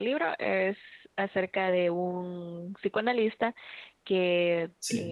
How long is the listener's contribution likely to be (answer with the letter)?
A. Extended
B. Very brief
B